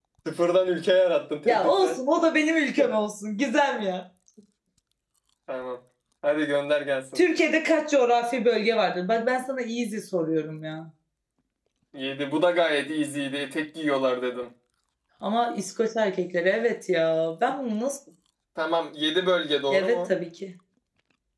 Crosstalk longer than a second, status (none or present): none